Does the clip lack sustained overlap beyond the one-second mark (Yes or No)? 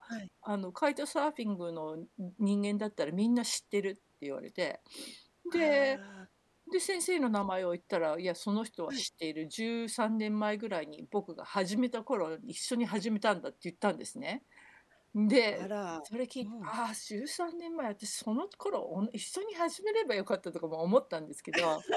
Yes